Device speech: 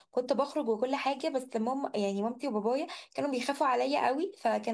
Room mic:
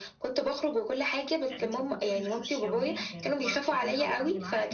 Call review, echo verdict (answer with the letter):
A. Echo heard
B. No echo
A